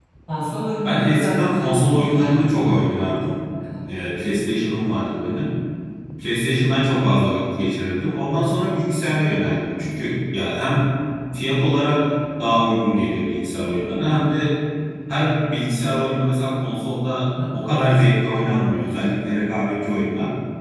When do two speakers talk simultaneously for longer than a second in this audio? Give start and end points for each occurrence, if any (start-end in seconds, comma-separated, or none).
0.8-2.6